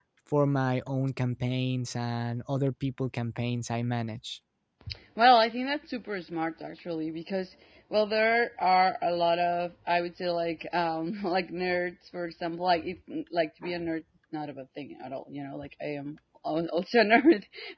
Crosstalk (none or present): none